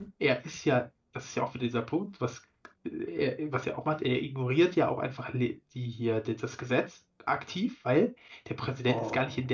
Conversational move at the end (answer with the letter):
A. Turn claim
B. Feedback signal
B